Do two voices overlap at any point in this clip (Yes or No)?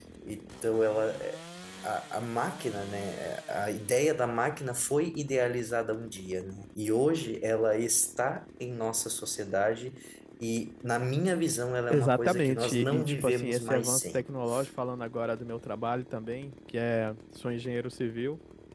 Yes